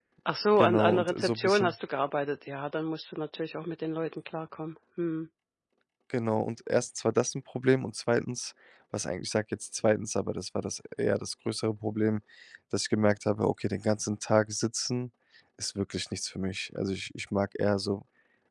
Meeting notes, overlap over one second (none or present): present